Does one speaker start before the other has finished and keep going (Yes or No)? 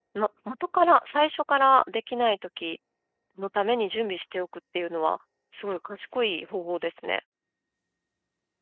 No